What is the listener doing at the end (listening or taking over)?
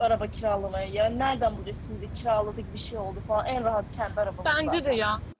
taking over